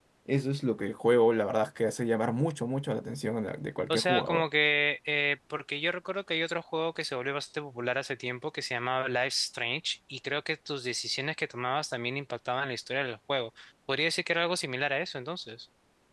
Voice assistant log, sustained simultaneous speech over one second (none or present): none